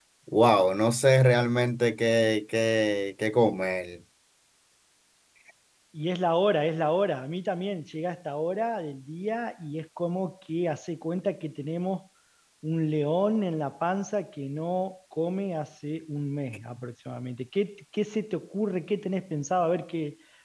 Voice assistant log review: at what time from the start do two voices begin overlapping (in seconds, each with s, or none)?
none